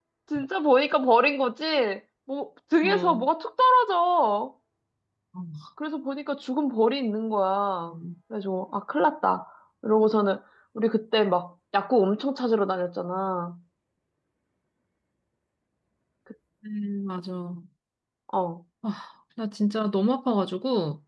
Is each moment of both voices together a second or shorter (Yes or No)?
Yes